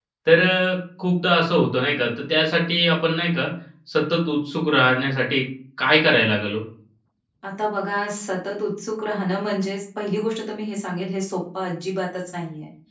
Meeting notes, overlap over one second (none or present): none